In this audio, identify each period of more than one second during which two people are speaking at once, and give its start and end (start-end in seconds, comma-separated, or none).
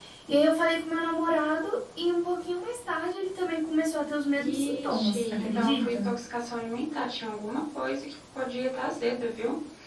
4.4-6.1